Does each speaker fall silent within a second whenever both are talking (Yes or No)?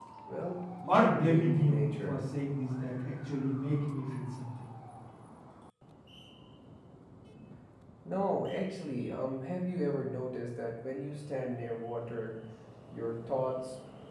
No